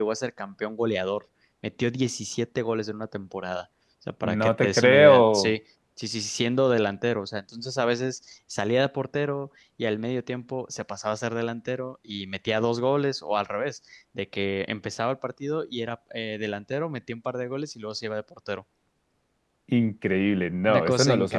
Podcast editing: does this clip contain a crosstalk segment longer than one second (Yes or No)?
Yes